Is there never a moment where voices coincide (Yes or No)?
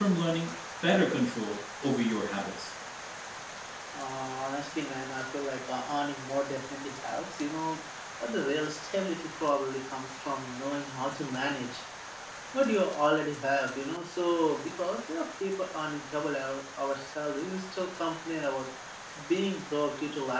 Yes